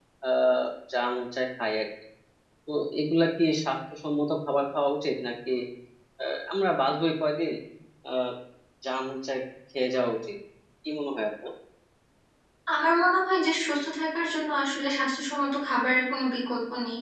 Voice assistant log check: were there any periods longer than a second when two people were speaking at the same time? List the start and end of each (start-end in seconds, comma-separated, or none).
none